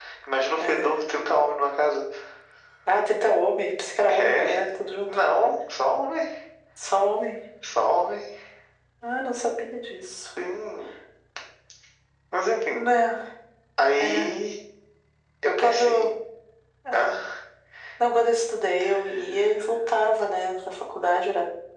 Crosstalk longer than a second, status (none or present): none